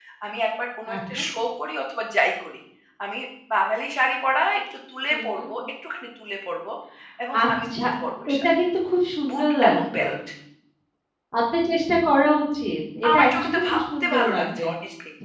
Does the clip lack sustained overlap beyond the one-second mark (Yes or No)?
No